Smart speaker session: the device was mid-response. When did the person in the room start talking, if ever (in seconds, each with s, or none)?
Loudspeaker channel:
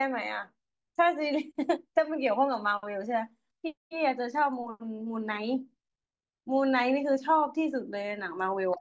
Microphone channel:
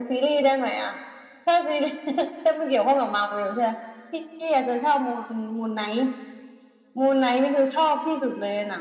none